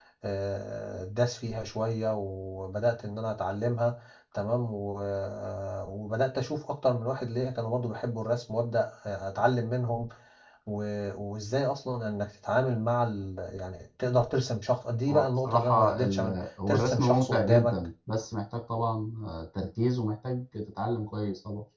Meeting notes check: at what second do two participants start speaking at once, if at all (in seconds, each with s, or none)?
15.1 s